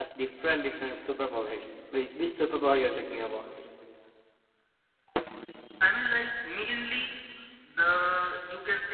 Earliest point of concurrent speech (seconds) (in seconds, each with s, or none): none